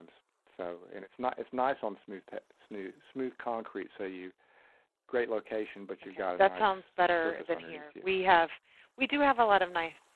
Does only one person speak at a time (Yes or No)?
No